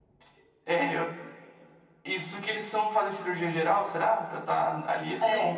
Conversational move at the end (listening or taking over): taking over